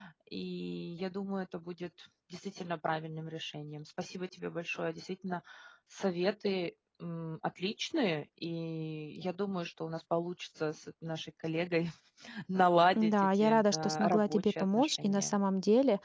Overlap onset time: 13 s

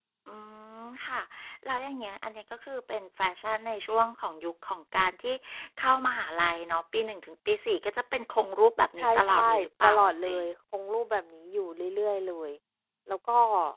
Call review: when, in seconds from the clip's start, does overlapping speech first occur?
9 s

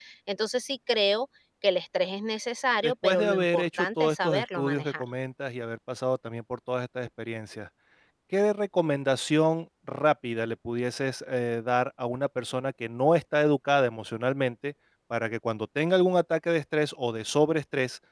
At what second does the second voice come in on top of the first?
3 s

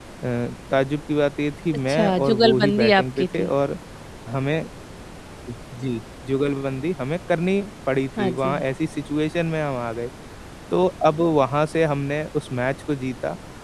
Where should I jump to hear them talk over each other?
2 s

